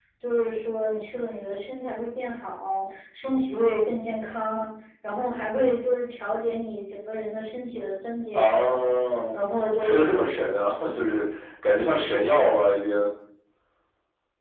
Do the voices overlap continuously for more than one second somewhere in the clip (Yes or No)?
No